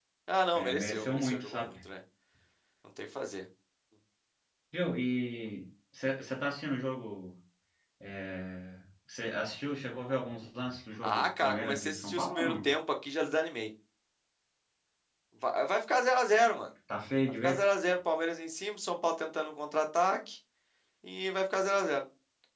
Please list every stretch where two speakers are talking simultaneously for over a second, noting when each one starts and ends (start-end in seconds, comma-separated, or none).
0.5-1.8, 11.0-12.7